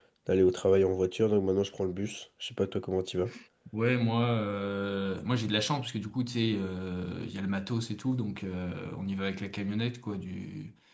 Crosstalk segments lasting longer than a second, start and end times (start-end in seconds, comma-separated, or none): none